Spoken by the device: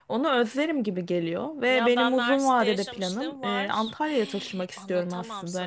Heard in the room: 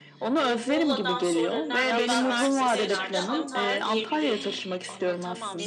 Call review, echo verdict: present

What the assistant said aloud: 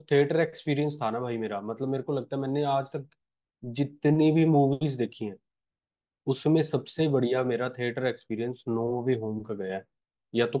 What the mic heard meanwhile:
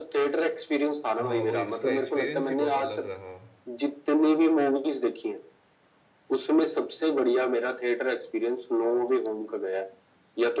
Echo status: present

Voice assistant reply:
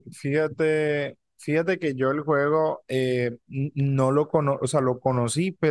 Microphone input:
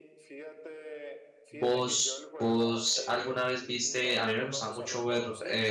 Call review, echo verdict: present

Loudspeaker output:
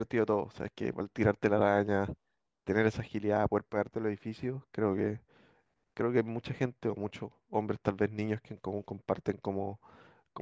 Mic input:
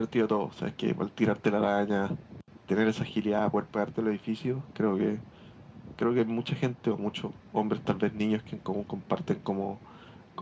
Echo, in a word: present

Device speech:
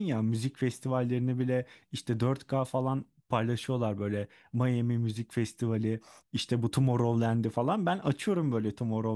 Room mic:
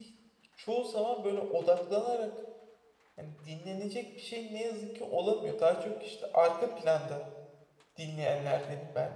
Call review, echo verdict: none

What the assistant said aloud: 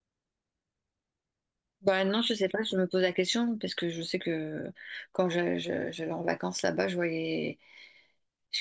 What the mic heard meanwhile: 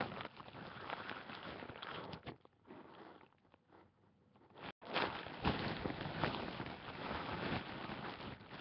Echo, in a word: none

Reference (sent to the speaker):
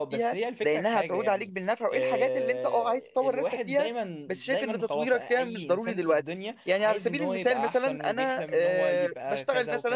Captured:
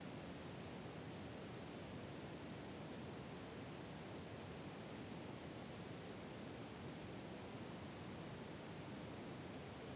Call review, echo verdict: none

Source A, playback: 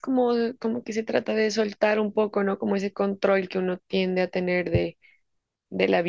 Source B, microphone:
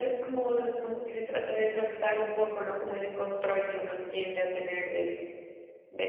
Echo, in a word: present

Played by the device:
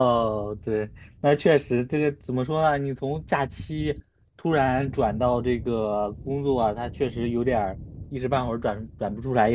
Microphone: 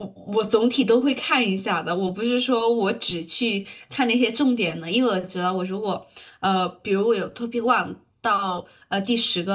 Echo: none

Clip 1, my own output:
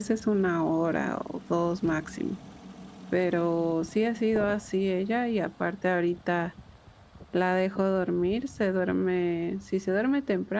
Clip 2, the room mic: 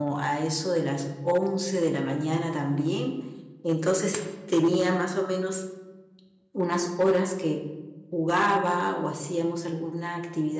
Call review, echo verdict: none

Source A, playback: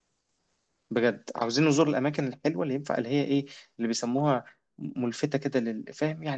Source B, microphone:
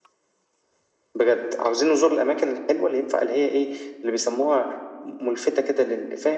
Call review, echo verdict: present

